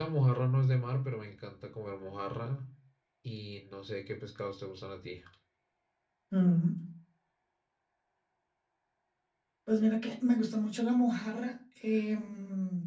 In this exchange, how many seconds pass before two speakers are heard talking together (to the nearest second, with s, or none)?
none